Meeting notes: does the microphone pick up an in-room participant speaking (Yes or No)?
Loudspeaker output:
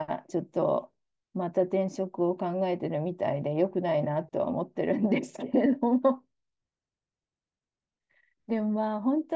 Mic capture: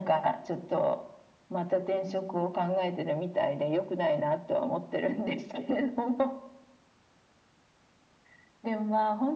No